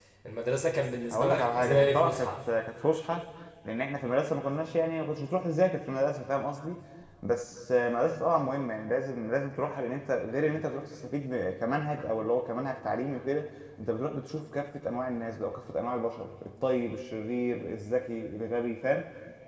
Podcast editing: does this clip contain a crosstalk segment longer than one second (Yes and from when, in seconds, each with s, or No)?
Yes, from 1.1 s